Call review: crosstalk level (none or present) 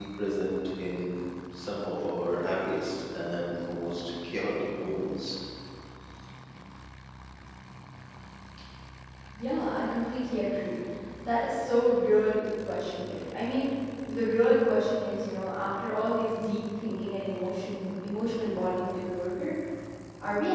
none